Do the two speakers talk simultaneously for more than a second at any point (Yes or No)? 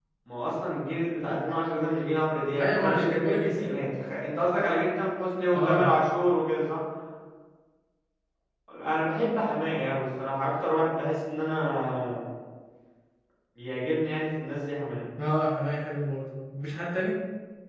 Yes